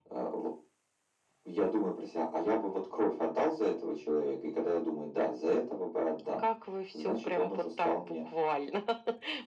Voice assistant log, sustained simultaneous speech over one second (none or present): present